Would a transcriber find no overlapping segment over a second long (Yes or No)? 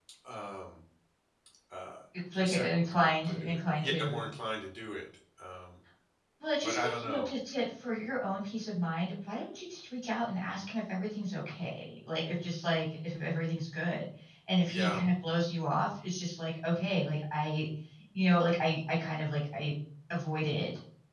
No